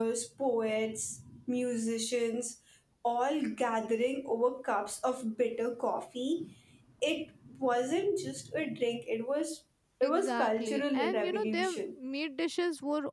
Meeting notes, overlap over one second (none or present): present